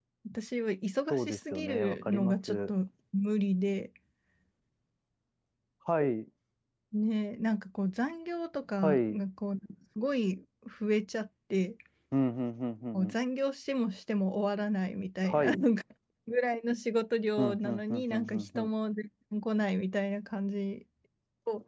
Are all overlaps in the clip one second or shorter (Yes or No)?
No